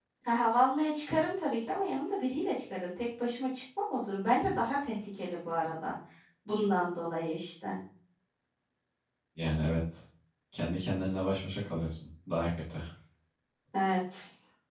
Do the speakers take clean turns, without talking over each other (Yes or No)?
Yes